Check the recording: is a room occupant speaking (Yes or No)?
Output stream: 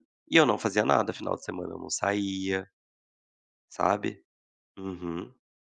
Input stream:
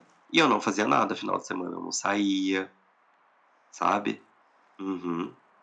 No